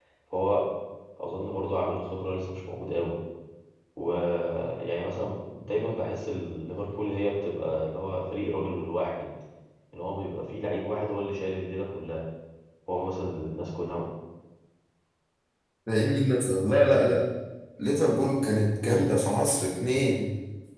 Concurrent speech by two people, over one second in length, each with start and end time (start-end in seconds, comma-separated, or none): none